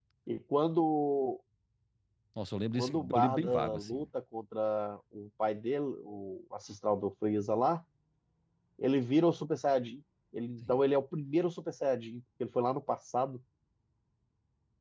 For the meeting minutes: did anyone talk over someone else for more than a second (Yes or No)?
Yes